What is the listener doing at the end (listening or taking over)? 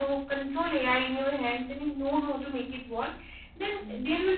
listening